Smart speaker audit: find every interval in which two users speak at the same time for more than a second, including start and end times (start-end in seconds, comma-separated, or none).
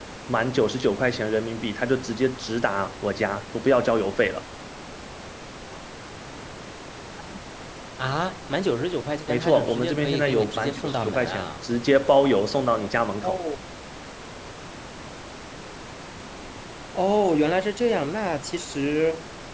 9.3-11.5